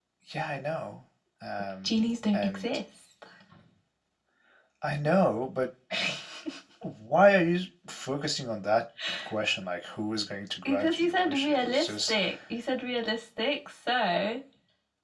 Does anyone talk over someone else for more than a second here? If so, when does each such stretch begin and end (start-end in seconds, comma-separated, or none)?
10.7-12.2